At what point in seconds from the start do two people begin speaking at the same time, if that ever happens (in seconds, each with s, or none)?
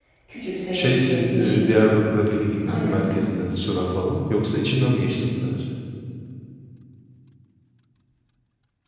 0.7 s